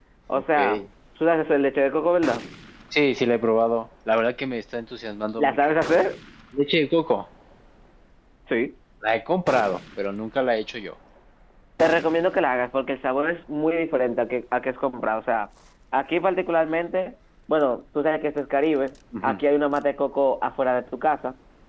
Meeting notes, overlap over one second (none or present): none